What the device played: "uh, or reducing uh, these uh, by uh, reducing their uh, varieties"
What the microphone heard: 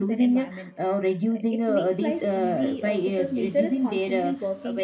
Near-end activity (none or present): present